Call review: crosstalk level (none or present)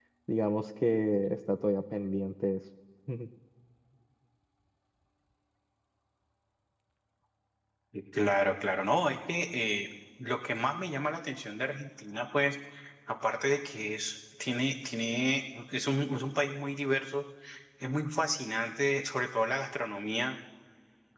none